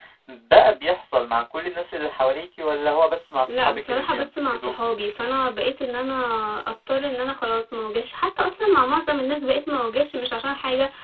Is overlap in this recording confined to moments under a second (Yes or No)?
No